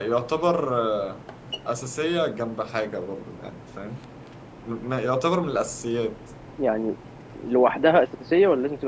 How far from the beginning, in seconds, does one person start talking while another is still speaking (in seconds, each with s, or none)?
none